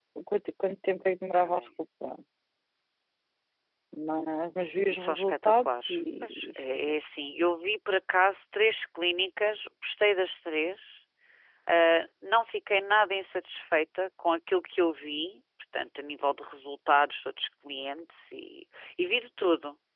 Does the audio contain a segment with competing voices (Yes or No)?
Yes